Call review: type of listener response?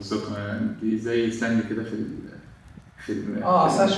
taking over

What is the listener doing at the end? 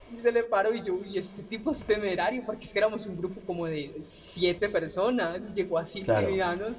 listening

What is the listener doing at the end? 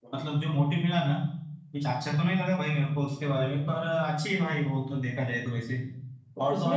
listening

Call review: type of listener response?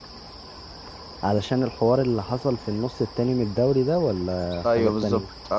taking over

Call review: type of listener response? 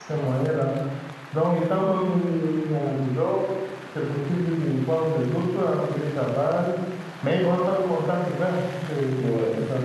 taking over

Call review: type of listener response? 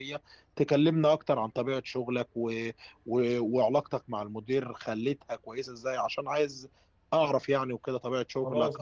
taking over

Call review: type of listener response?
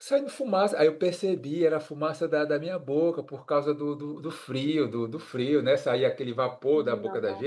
listening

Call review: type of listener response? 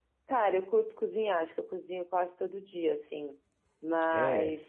listening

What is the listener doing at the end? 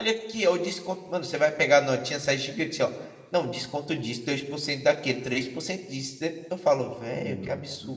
taking over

